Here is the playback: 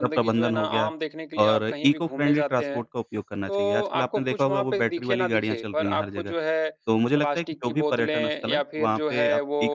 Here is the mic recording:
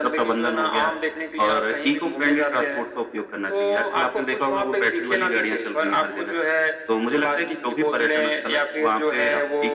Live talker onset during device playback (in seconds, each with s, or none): none